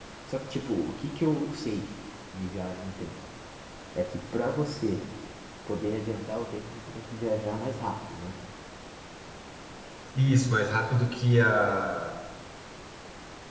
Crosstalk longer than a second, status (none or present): none